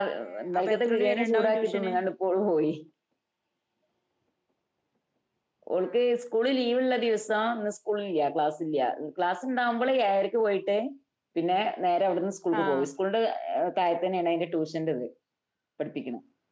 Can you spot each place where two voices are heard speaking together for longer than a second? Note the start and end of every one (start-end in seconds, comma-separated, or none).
0.5-1.9